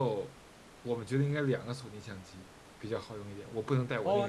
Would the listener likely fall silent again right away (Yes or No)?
No